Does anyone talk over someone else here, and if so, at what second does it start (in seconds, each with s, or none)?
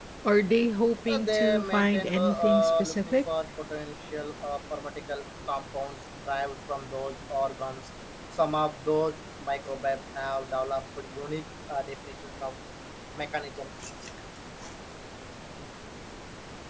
1.1 s